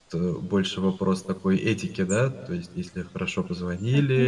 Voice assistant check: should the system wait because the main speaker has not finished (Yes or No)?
Yes